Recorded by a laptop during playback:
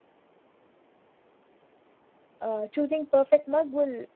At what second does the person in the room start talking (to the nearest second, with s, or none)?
2 s